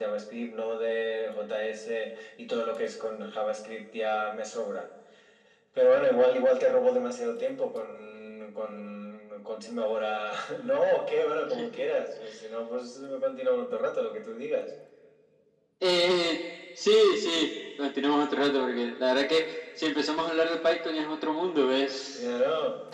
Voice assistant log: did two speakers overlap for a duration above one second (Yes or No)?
No